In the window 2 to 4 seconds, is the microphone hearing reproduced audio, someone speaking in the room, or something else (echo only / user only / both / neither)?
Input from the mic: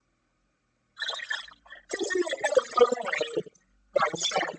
echo only